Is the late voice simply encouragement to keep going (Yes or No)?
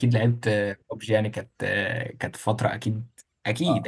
No